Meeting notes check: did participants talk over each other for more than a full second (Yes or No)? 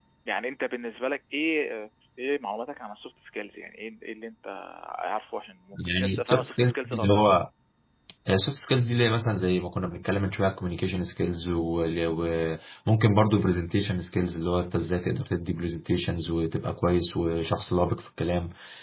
Yes